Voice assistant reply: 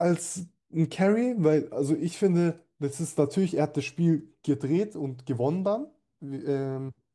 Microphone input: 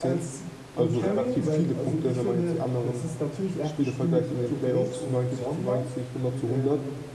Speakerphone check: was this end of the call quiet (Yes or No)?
No